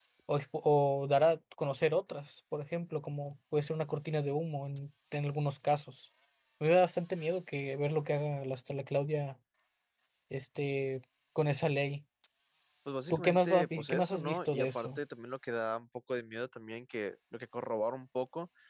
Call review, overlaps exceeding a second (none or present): present